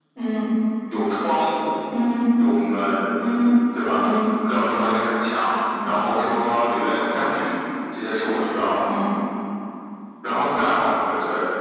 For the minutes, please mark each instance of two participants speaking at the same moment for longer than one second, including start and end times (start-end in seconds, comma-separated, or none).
none